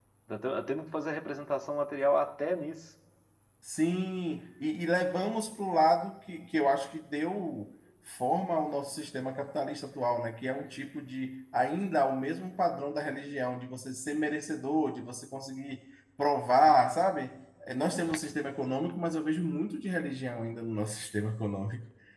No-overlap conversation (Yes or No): Yes